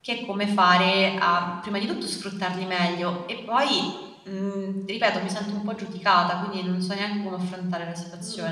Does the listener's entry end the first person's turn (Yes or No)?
Yes